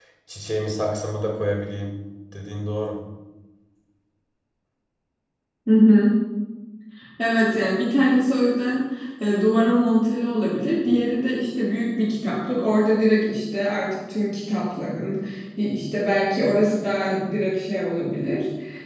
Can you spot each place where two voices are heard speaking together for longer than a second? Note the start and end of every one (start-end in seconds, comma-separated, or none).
none